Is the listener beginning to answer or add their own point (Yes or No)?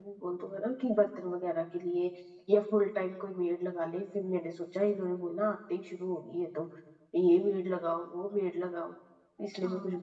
Yes